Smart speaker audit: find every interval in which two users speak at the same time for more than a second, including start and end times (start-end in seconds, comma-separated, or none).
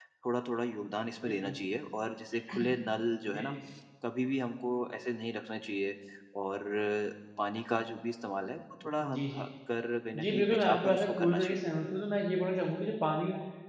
10.2-11.6